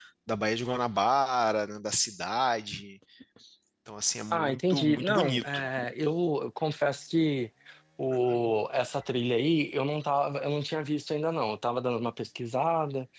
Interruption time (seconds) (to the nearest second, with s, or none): 4 s